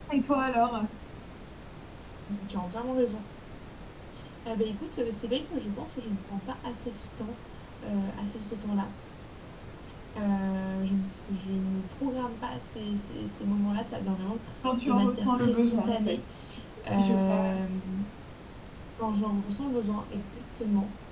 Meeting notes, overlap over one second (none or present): present